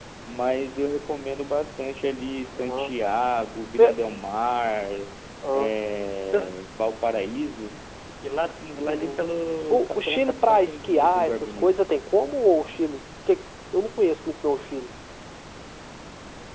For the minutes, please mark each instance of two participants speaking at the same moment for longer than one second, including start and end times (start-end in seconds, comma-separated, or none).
9.7-11.9